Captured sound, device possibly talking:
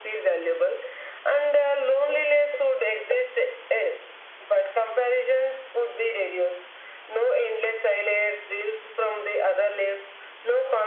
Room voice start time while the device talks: none

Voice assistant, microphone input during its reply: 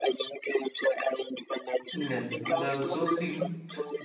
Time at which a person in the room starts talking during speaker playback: 1.9 s

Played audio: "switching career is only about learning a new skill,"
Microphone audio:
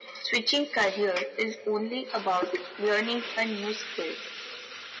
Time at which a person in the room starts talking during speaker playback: none

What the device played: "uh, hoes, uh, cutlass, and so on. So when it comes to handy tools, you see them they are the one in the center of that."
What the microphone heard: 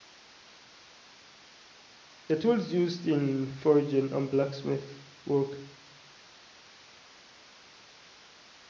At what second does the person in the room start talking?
2.3 s

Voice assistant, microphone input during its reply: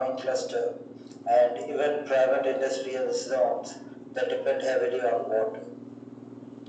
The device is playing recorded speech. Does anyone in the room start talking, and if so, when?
none

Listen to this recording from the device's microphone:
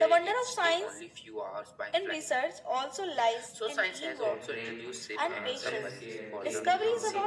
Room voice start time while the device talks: 4.2 s

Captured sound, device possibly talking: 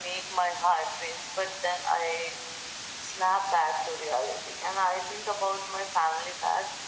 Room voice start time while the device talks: none

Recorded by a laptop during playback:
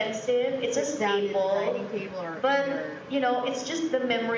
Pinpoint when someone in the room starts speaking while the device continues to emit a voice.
0.6 s

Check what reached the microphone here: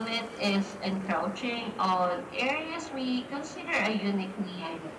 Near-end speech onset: none

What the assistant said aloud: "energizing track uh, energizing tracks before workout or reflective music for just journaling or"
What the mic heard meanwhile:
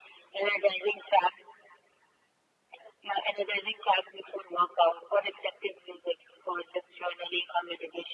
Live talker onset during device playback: none

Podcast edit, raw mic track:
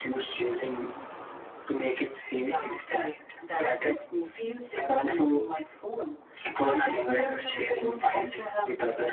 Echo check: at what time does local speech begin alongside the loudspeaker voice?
none

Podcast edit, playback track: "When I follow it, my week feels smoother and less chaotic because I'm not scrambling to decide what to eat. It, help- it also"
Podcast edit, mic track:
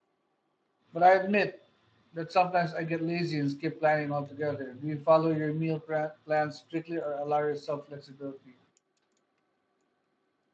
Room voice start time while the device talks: 0.9 s

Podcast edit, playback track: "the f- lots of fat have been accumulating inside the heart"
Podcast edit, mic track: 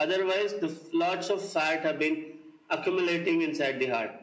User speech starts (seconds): none

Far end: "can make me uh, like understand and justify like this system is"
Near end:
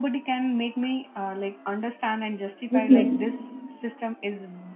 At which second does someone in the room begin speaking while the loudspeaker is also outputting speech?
2.8 s

